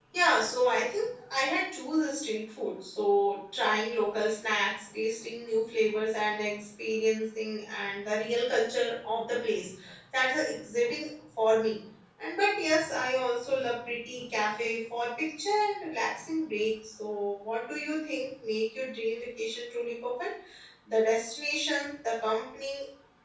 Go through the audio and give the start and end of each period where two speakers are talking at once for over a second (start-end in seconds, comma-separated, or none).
none